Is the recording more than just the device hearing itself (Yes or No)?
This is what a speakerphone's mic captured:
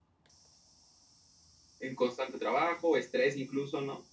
Yes